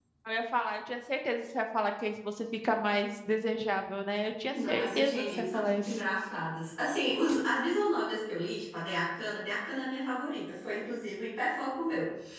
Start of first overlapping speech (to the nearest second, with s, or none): 5 s